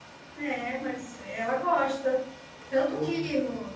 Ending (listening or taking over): listening